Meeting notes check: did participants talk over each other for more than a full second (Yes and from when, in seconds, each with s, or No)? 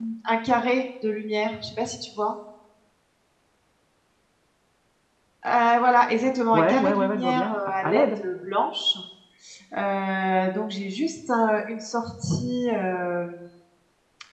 Yes, from 6.5 s